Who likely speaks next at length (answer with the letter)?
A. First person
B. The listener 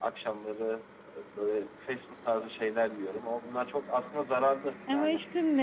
B